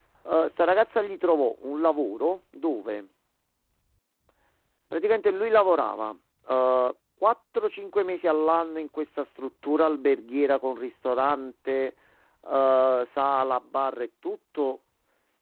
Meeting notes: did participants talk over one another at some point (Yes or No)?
No